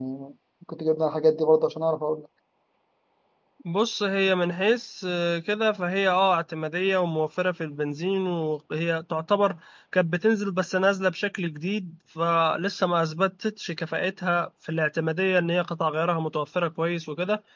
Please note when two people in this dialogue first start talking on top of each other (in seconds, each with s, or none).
none